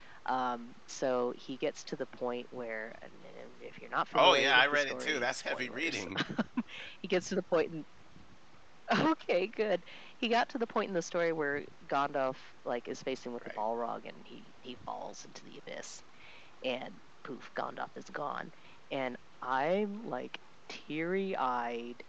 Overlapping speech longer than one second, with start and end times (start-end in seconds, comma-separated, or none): 4.1-6.0